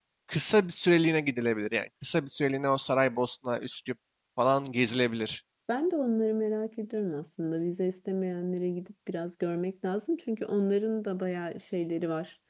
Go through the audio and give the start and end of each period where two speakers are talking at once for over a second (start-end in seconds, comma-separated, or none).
none